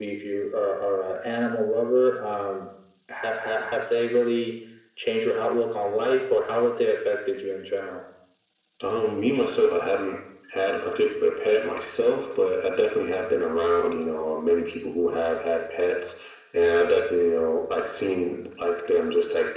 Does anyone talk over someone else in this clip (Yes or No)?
No